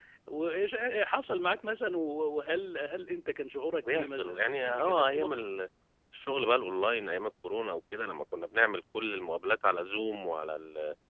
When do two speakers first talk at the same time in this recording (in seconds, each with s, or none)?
3.9 s